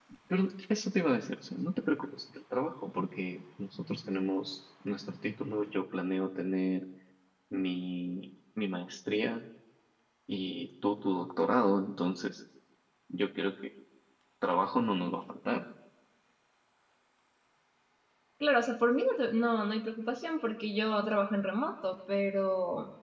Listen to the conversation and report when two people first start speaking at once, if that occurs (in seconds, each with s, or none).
none